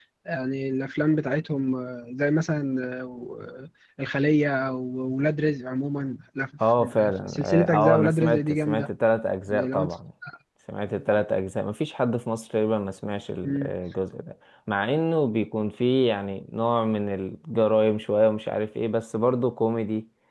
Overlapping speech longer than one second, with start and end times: 6.8-8.9

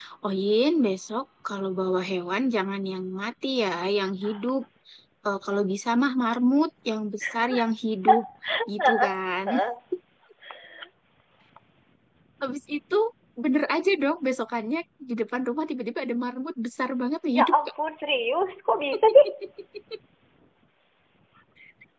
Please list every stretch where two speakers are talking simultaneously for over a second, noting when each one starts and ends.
none

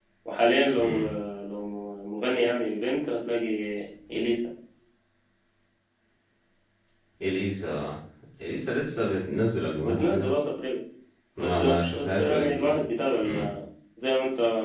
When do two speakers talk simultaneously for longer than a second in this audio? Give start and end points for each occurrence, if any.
11.4-12.8

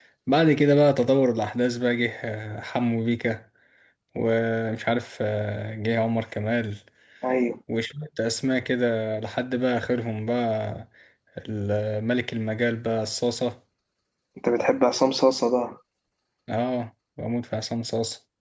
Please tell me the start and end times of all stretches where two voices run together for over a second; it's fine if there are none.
none

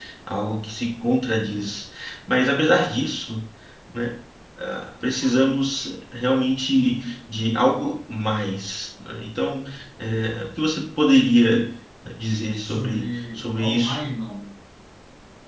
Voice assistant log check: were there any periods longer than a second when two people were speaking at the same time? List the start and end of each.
12.6-14.0

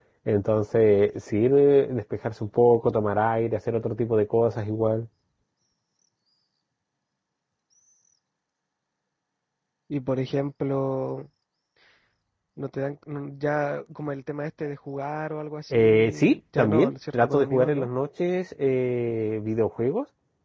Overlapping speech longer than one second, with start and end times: 15.7-17.9

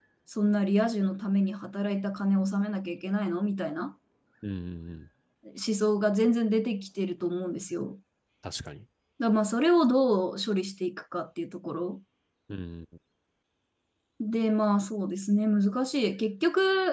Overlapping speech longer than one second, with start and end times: none

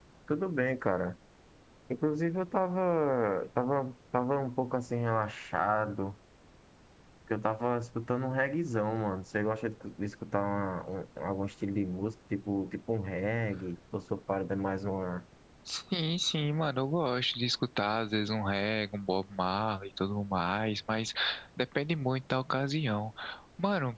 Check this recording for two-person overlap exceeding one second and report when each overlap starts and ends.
none

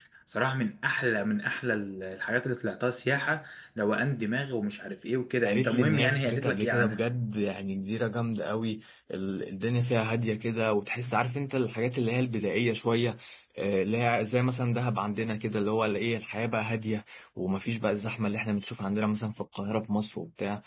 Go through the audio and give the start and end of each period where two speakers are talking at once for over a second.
5.4-7.0

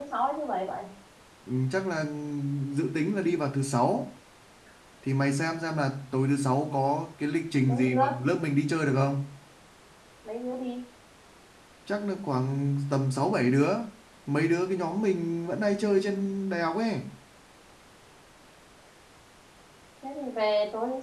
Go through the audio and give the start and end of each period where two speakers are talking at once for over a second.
none

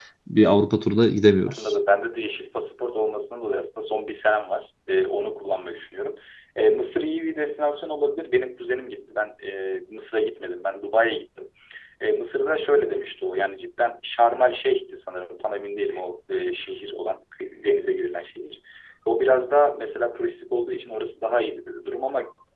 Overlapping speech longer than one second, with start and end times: none

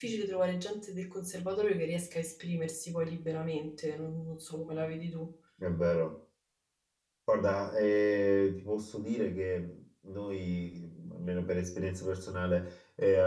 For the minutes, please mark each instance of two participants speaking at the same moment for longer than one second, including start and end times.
none

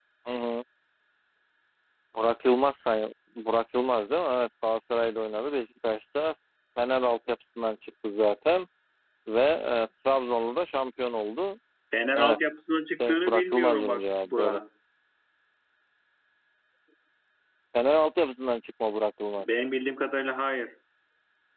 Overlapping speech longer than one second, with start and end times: 13.0-14.6

